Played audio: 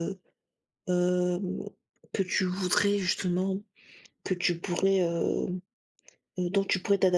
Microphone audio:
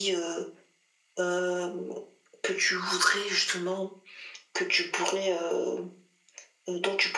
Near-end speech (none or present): none